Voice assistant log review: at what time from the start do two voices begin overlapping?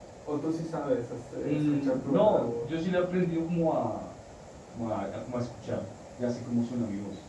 1.4 s

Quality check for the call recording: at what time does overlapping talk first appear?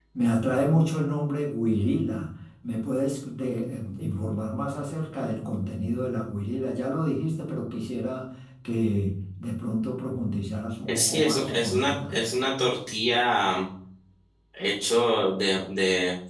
10.8 s

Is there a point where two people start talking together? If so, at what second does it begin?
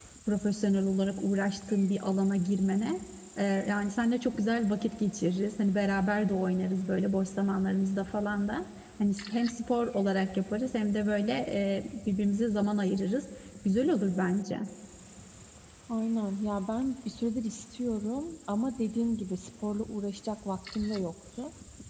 none

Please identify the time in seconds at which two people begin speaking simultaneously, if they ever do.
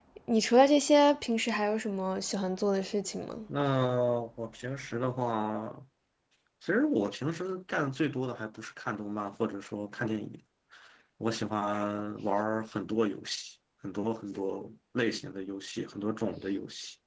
none

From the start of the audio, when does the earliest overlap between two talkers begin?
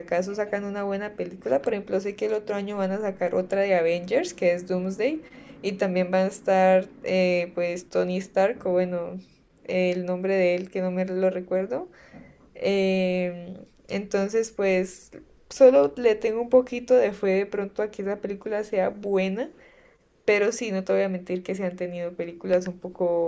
none

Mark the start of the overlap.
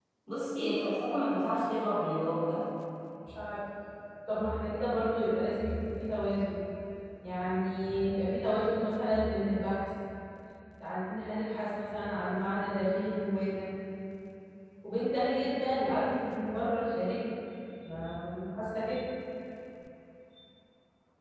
none

